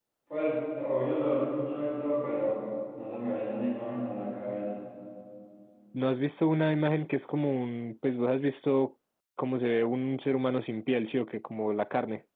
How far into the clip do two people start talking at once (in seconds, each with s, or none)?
none